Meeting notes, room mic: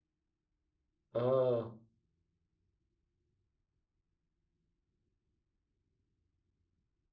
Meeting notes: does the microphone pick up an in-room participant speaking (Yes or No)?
Yes